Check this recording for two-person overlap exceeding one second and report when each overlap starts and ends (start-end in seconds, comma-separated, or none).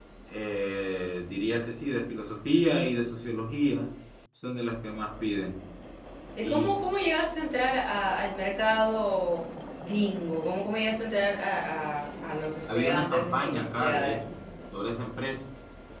12.7-14.2